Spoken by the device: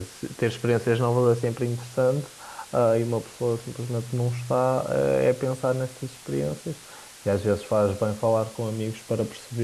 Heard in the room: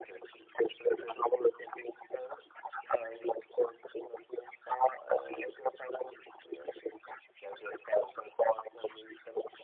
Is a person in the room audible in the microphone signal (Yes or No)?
No